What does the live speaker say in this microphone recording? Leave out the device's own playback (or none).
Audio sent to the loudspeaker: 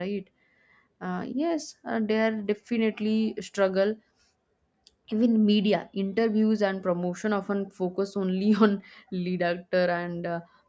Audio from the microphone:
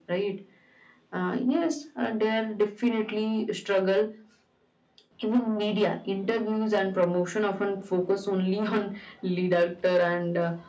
none